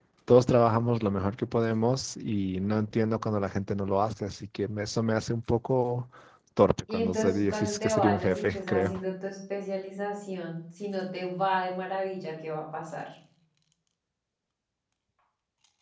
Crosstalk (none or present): present